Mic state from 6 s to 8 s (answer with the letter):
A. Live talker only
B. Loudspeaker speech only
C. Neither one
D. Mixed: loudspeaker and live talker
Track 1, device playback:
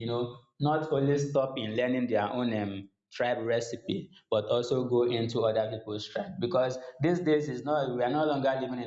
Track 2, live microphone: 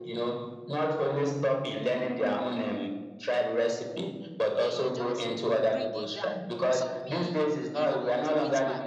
D